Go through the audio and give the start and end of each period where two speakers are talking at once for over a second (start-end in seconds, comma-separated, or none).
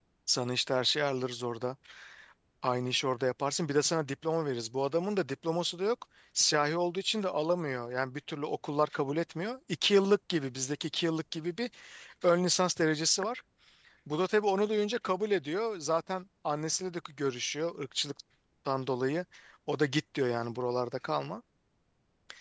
none